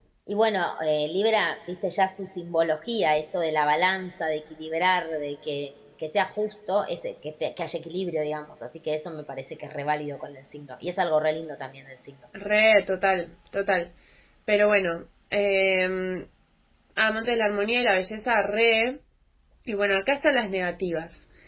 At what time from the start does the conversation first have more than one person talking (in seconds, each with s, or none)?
none